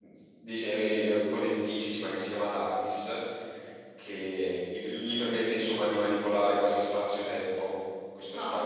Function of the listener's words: listening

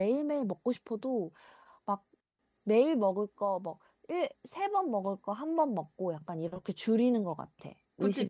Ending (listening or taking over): taking over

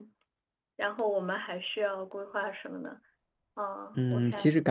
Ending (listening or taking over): taking over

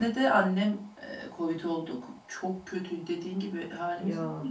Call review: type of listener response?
listening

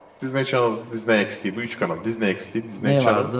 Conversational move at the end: taking over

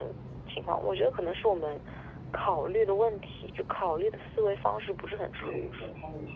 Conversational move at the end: taking over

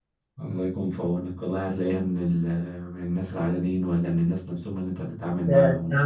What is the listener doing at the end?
taking over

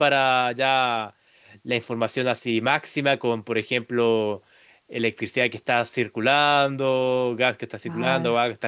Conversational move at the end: listening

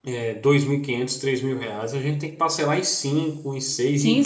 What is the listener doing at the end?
taking over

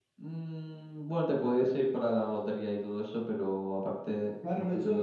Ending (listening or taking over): taking over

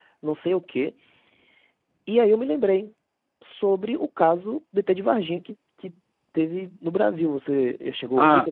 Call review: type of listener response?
taking over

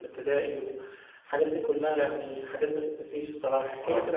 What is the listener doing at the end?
taking over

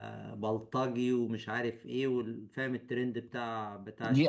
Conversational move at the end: taking over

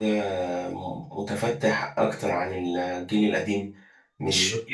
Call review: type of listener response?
listening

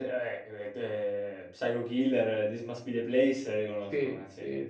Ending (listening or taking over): taking over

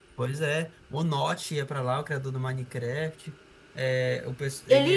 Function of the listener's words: listening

